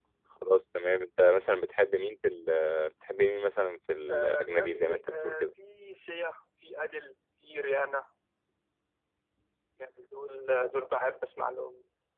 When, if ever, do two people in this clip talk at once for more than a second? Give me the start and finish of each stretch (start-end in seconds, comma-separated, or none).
4.1-5.4